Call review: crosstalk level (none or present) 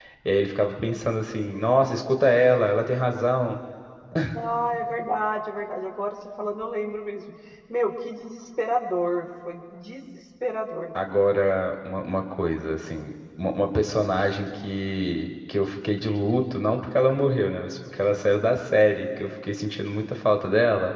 none